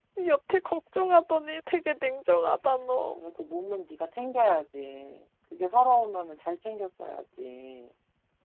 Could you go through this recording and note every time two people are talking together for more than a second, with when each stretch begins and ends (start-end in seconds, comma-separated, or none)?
none